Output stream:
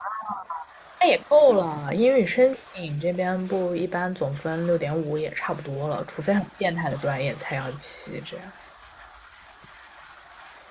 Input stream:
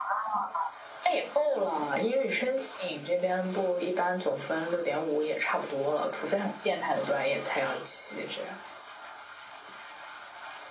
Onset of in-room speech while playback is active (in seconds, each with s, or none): none